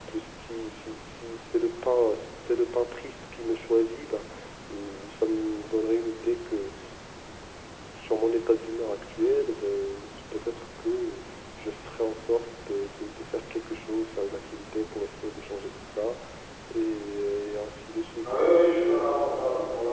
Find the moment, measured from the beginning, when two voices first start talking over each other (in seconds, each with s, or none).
none